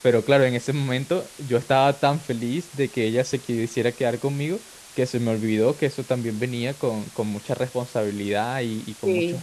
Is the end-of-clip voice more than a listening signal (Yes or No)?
No